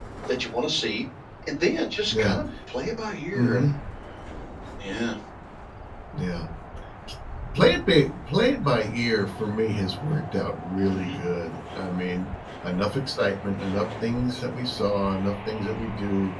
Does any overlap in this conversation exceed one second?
No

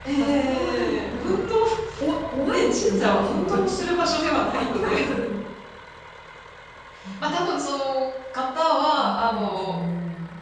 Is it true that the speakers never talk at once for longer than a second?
No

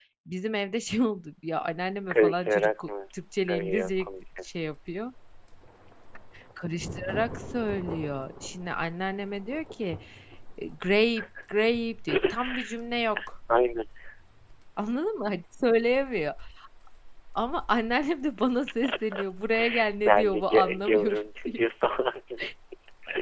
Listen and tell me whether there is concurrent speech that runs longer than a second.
Yes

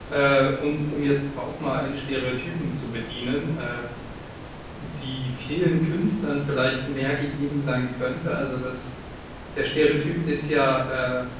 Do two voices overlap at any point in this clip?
No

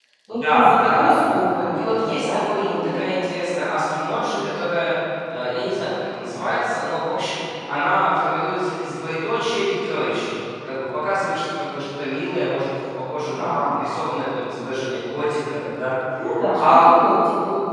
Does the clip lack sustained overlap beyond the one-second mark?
No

